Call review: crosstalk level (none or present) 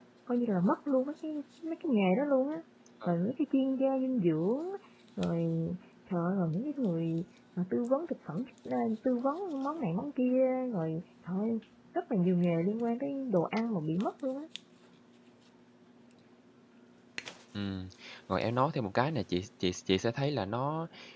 none